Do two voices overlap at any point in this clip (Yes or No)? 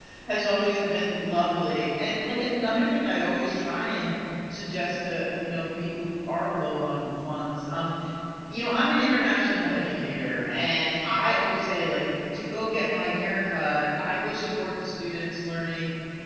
No